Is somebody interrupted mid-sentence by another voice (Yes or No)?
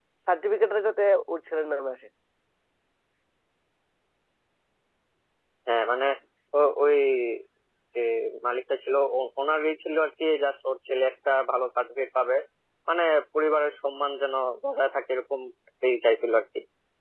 No